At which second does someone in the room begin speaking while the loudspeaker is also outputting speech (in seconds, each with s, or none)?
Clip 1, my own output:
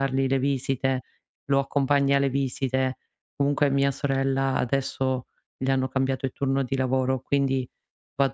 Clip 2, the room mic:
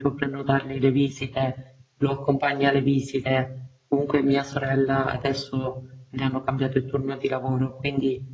none